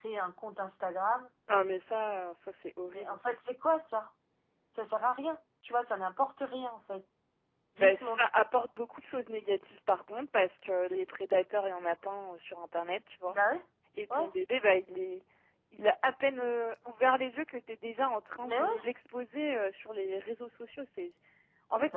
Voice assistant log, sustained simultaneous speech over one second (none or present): none